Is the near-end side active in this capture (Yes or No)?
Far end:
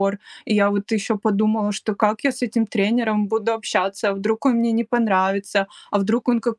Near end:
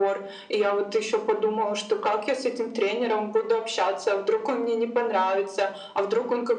No